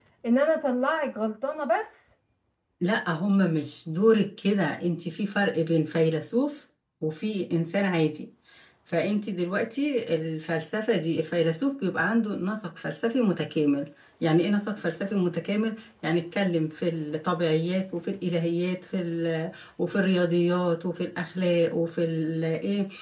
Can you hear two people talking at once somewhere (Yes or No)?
No